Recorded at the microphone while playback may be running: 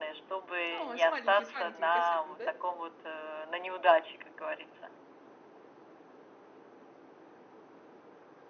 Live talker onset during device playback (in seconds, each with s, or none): 0.7 s